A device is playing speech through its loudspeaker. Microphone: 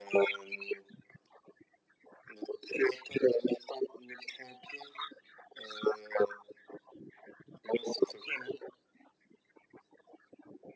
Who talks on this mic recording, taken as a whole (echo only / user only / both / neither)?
echo only